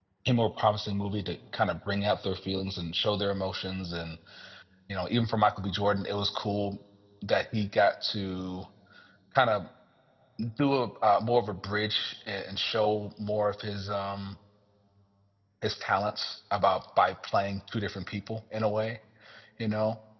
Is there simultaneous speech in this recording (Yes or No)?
No